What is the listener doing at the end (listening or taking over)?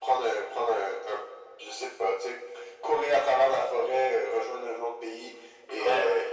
taking over